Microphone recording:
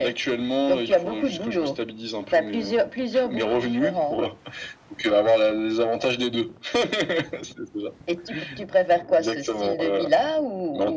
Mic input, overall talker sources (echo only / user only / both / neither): echo only